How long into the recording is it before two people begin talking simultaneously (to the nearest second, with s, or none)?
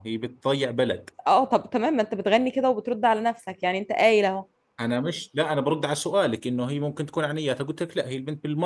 none